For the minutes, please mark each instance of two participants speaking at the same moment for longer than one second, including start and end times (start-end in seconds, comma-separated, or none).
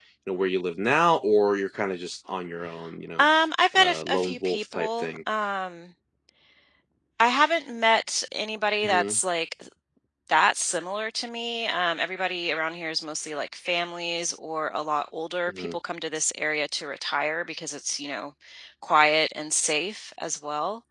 3.8-5.2